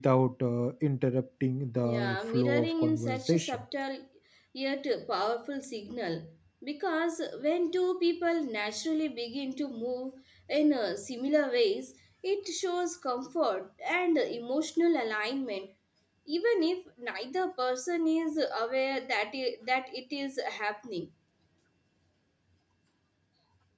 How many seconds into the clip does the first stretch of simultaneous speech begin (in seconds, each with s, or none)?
1.8 s